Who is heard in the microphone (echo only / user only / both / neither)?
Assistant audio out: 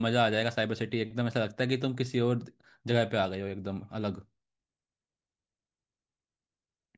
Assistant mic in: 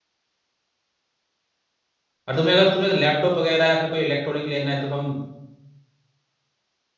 user only